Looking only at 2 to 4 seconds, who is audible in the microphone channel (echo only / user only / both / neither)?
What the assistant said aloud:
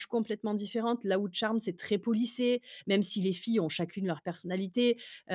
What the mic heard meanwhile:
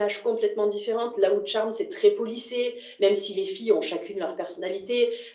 echo only